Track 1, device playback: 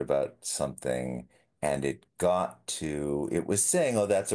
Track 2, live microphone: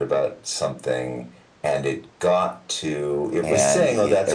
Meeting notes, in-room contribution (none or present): present